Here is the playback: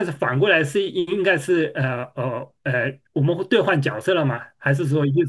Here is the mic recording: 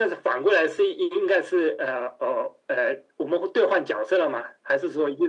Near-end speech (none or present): none